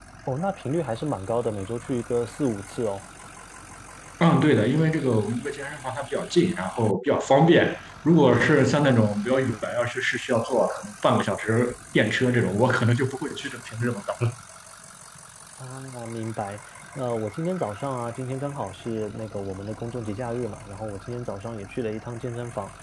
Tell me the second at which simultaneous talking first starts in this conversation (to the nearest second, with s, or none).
none